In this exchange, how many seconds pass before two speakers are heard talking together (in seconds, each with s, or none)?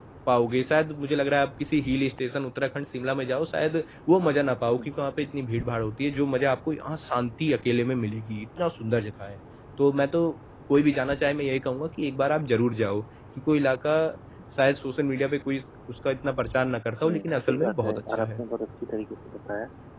17.0 s